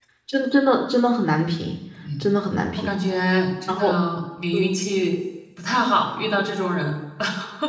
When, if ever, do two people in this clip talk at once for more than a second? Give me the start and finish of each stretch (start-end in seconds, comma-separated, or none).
none